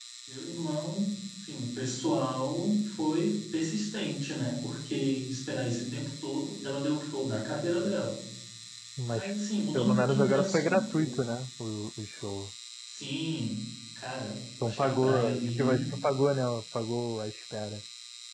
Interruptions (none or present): present